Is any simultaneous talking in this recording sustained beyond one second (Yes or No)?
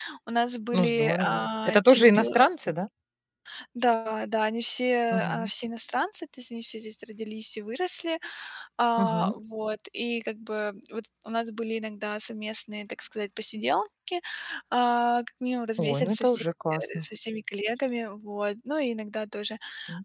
Yes